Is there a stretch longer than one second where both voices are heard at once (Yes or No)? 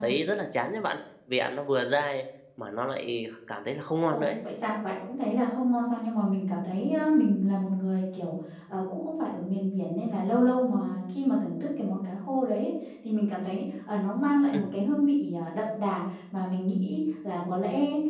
No